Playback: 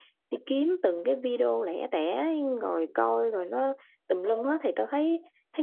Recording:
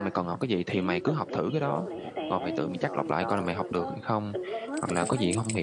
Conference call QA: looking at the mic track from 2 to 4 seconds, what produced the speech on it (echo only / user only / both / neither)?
both